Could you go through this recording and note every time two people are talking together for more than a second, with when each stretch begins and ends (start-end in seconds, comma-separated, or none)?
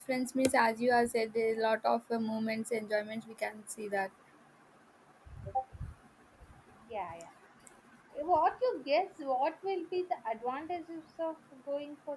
none